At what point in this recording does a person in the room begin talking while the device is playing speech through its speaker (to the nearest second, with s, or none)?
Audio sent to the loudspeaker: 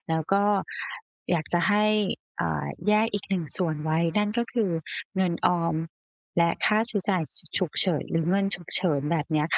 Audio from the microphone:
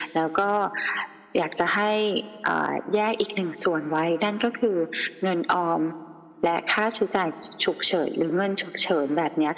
none